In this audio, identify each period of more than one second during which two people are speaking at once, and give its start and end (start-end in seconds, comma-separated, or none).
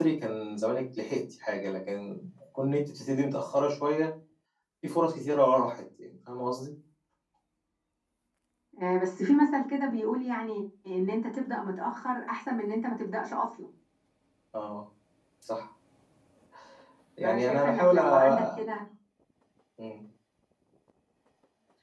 17.2-18.6